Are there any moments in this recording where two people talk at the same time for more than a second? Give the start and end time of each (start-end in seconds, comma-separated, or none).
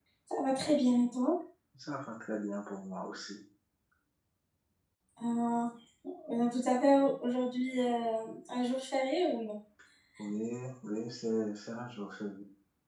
none